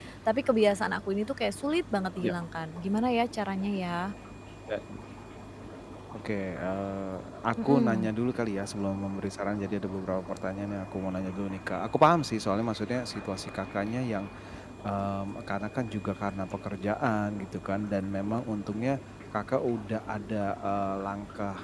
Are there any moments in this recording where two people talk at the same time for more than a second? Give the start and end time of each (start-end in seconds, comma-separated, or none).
none